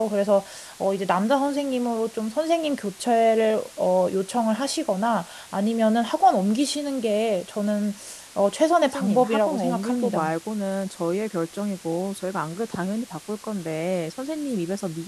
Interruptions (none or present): present